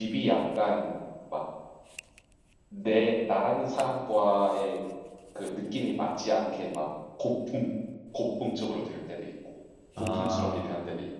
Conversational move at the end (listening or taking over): listening